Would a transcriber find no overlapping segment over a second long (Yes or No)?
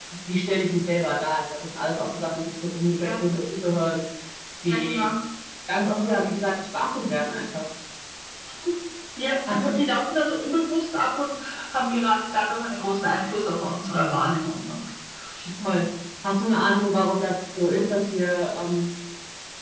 Yes